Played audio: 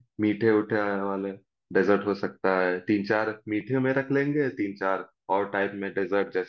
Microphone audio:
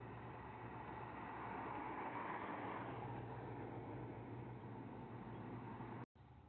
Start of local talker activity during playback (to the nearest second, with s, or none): none